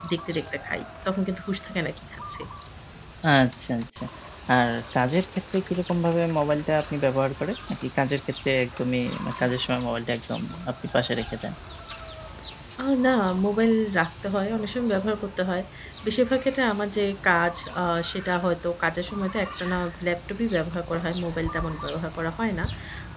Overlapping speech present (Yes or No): No